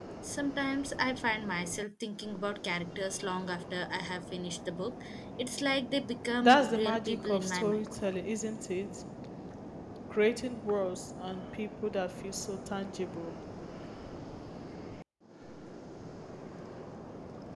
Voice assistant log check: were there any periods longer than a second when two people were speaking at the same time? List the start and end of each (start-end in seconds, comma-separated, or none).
6.4-7.9